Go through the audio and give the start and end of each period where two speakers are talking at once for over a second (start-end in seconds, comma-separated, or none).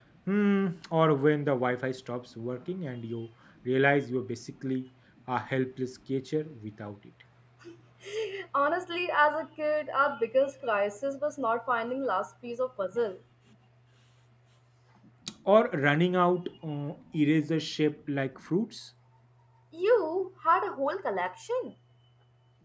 none